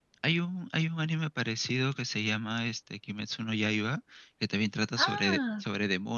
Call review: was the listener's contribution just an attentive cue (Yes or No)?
Yes